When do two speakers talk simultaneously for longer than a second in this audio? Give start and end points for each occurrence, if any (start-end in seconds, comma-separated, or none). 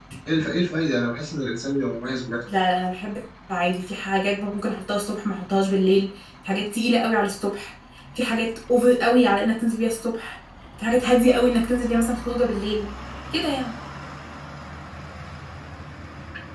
none